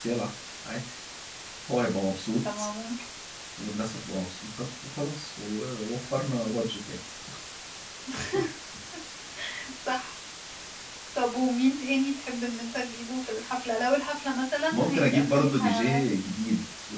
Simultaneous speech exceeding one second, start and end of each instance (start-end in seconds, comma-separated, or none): 14.7-16.0